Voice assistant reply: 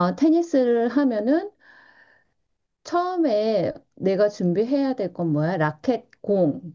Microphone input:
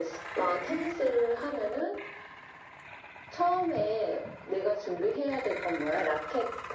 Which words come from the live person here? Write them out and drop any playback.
none

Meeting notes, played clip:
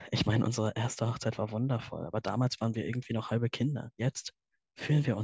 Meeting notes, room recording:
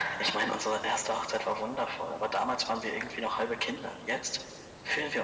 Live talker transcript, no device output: none

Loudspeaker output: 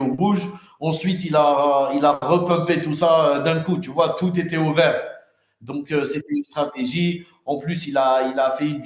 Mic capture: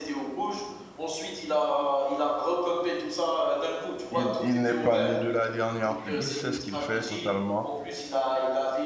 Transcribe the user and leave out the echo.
il il n'est pas né de la dernière pluie. Il sait ce qu'il fait totalement.

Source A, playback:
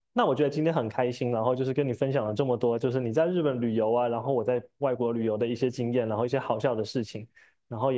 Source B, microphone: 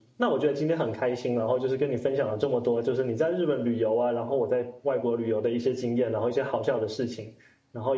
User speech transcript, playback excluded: none

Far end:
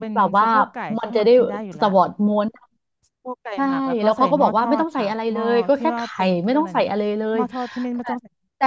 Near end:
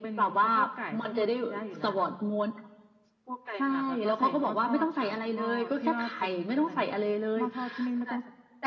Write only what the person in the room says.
none

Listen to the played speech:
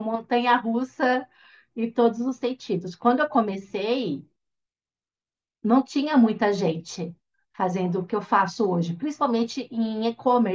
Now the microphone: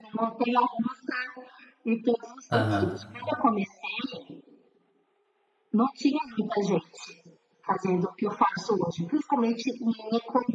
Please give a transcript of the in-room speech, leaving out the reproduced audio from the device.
aham,

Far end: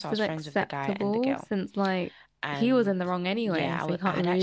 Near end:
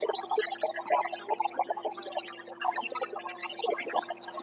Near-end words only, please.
none

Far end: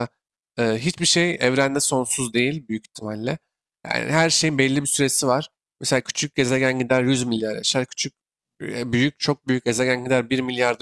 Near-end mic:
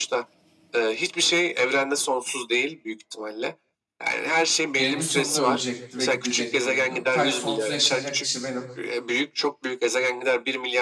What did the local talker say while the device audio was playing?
eninde sonunda ölecekti ve gidecekti yani. O Sadece sonsuz yaşayacak kişi benim

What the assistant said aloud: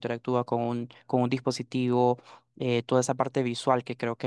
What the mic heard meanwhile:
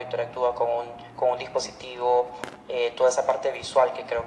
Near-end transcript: none

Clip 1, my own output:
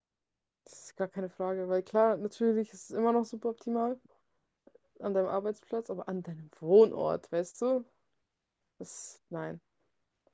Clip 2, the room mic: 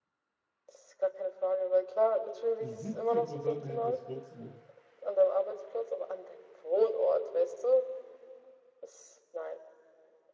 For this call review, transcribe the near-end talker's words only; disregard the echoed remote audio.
siebzig Prozent nehmen das Furzen ne?

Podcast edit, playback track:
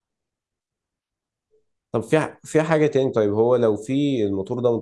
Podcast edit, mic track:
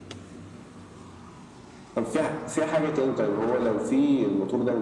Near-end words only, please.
none

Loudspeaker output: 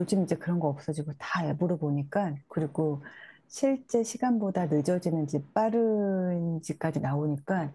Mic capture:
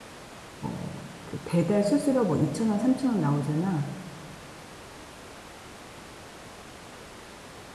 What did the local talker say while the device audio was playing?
어, 그 배달 수수료 뭐 2천 원, 3천 원 나오잖아.

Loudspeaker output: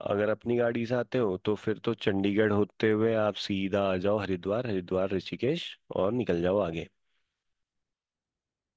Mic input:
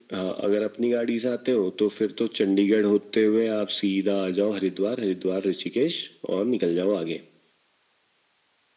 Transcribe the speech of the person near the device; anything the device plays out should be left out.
none

